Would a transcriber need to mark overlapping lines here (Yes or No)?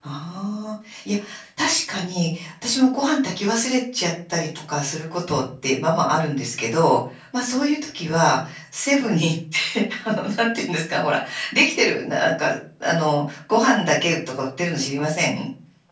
No